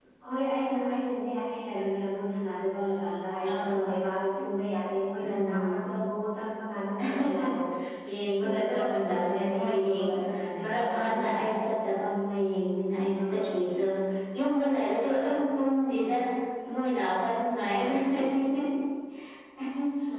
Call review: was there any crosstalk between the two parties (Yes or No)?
Yes